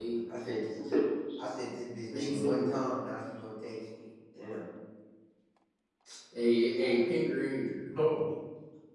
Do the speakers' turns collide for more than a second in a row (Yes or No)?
No